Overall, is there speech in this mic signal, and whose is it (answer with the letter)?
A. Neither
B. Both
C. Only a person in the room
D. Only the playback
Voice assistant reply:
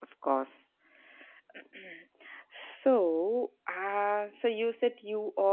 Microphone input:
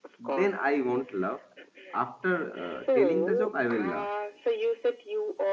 B